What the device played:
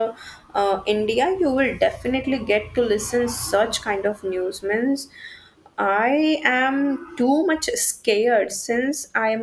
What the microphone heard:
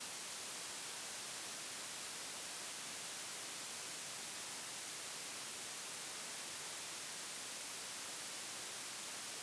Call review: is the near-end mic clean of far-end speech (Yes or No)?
Yes